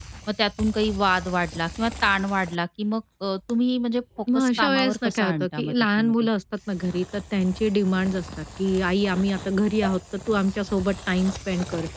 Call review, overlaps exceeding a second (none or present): present